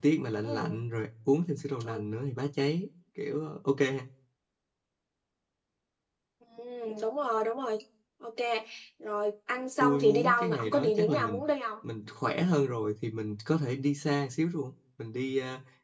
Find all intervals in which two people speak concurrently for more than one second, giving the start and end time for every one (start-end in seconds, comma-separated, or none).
9.8-11.4